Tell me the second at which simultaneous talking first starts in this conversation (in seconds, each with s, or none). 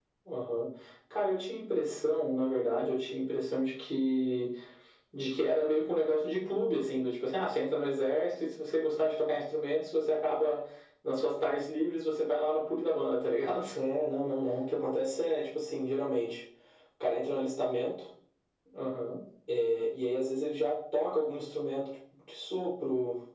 none